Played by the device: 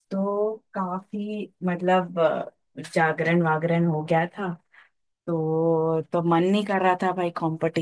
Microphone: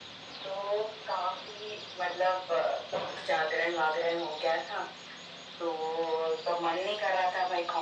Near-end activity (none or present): none